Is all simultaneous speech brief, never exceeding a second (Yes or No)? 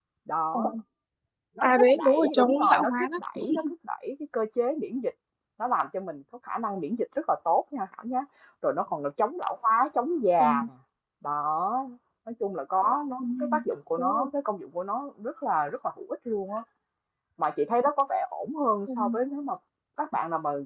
No